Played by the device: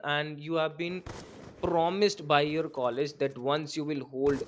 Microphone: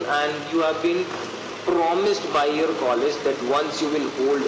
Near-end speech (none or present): none